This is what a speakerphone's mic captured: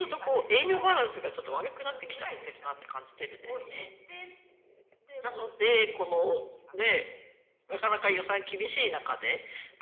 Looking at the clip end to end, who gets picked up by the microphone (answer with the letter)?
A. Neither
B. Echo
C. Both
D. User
C